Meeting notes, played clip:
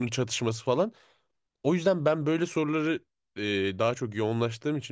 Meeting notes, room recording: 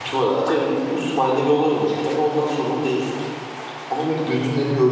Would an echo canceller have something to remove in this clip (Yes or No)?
No